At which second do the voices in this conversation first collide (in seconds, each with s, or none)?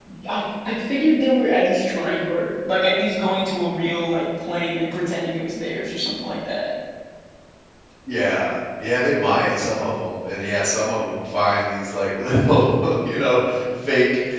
none